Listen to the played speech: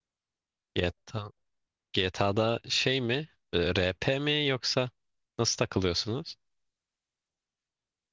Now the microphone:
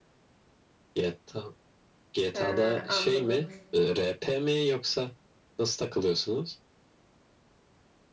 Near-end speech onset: 2 s

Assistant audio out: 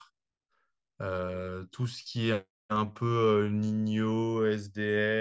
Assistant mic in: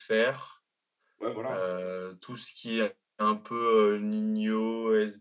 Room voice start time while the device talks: 1 s

